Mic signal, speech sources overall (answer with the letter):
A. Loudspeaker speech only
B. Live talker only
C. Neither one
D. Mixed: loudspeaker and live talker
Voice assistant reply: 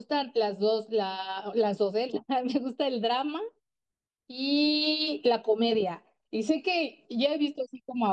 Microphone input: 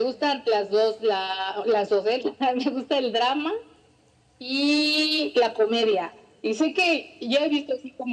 A